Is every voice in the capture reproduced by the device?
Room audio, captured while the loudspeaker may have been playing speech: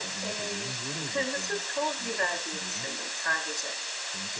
No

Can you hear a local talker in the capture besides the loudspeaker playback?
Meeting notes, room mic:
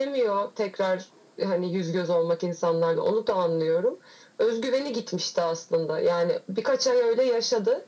No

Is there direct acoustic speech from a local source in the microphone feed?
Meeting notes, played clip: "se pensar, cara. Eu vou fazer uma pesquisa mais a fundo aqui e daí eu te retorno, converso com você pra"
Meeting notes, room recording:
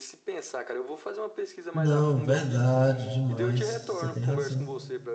Yes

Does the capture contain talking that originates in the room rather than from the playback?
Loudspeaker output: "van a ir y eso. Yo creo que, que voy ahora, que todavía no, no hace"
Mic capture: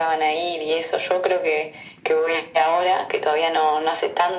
No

